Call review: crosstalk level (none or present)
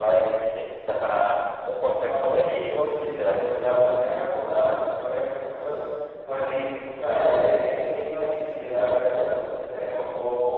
present